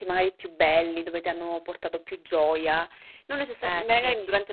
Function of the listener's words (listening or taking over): listening